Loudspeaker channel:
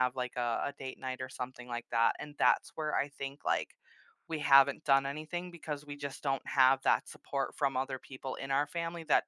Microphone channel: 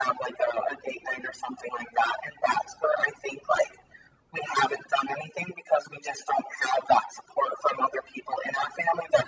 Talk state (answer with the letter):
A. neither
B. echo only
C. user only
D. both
B